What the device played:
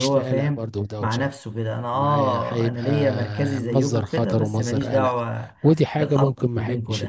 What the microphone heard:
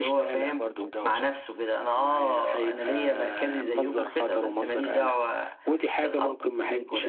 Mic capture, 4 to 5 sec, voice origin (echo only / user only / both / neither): echo only